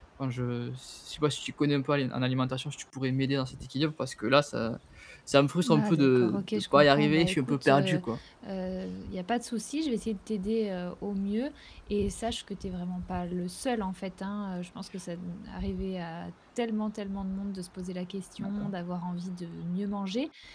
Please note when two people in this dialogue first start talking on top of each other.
5.7 s

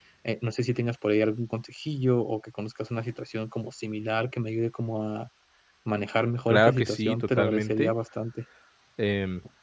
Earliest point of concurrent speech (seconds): 6.5 s

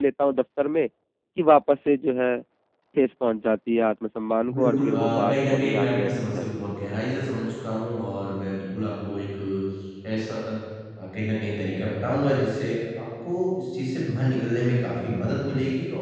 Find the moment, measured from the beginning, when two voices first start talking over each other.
4.5 s

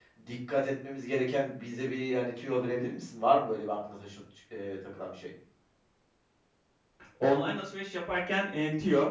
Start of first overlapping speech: none

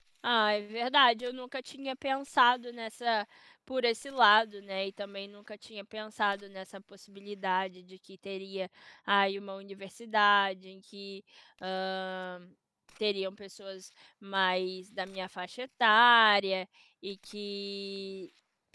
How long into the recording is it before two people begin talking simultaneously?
none

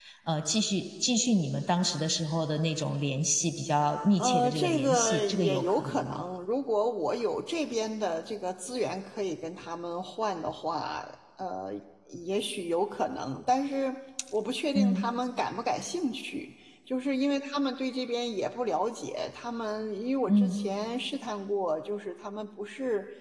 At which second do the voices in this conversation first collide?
4.2 s

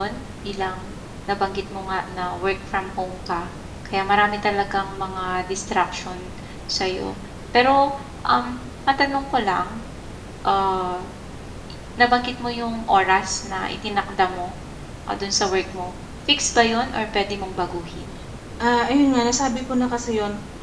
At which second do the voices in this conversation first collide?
none

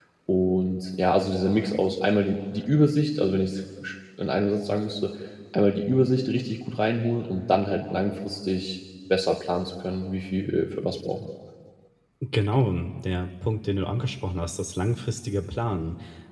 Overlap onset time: none

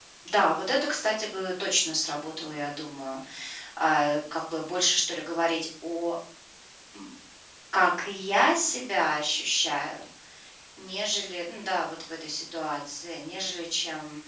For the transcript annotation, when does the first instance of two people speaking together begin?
none

